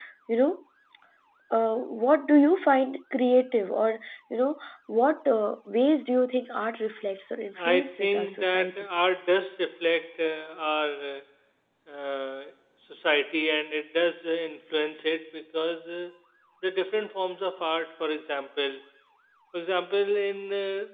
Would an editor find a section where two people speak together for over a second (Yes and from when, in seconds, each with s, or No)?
Yes, from 7.6 s